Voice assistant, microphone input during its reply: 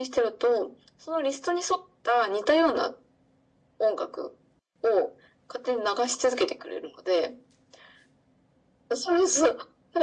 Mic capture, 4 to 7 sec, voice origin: echo only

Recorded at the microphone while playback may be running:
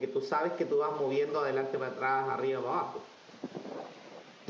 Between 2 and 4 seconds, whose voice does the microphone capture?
user only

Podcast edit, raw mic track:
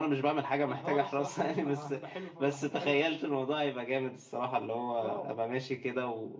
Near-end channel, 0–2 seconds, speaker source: echo only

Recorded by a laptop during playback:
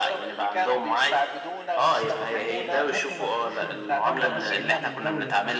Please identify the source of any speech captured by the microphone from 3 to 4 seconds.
both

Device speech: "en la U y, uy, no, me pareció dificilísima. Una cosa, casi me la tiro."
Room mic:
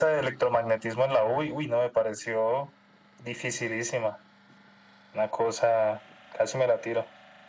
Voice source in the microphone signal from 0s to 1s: echo only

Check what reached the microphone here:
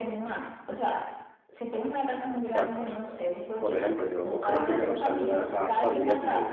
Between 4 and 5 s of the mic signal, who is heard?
both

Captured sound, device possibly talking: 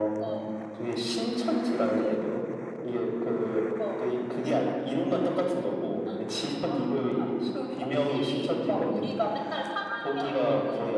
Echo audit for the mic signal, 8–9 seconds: echo only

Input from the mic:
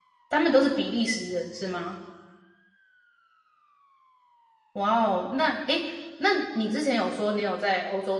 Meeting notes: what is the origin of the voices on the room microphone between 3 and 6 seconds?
user only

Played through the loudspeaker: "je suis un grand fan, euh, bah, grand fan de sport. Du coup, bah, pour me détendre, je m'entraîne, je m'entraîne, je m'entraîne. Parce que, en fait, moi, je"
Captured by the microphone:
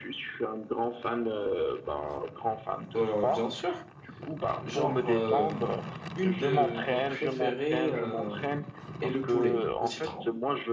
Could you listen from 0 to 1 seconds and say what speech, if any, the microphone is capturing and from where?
echo only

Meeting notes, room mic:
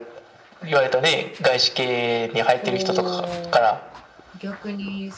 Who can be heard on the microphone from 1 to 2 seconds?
echo only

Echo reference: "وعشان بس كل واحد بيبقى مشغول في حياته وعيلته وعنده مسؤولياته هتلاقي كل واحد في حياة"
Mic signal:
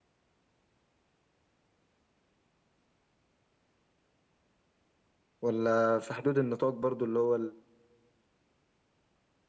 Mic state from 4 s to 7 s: user only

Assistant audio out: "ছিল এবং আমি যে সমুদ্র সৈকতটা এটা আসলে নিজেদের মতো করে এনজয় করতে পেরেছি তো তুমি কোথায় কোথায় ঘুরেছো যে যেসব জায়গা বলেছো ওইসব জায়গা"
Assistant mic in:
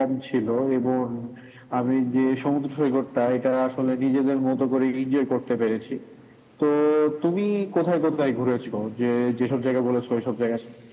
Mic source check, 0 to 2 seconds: echo only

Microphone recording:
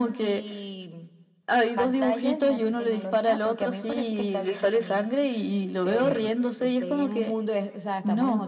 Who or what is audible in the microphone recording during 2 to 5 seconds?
echo only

